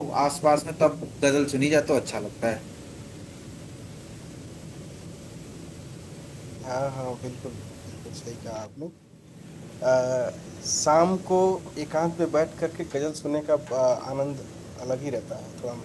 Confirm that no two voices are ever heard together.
Yes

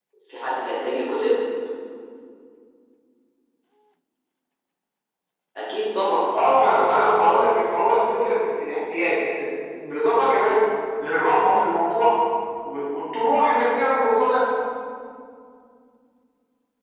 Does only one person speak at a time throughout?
Yes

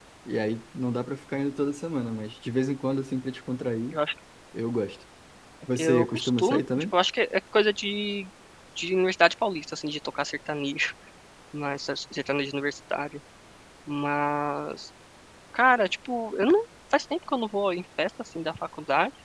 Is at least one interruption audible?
Yes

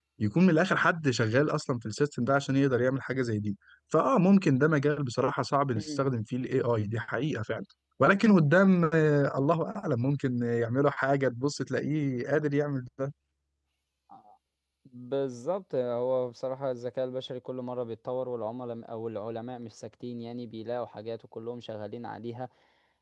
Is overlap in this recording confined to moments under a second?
Yes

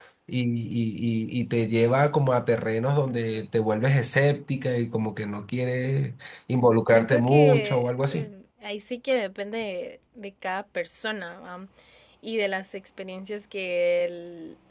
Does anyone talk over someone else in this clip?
Yes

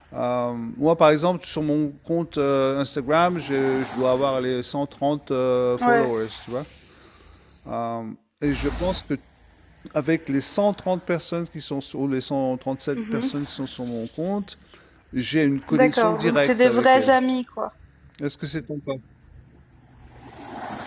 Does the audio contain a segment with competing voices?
Yes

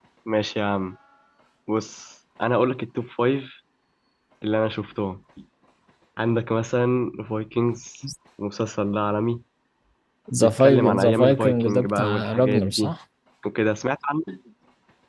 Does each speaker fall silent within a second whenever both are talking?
No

